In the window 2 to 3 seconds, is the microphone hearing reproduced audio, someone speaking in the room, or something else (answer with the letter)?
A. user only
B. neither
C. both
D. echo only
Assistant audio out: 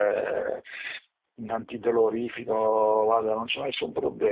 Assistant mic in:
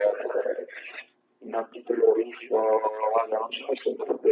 D